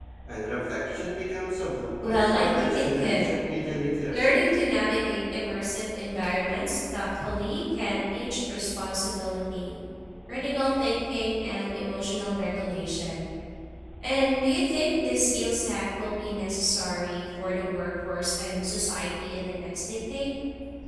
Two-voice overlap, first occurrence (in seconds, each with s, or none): 2.0 s